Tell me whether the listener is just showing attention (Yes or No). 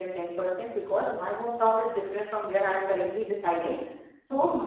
Yes